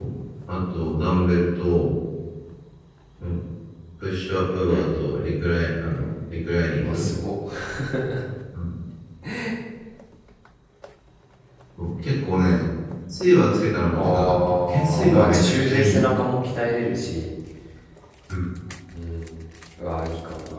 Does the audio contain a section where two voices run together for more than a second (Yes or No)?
Yes